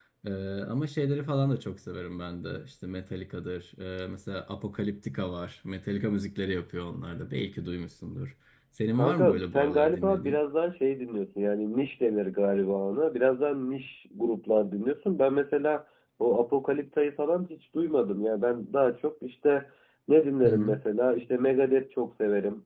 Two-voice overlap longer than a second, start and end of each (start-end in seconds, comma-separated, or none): 9.0-10.4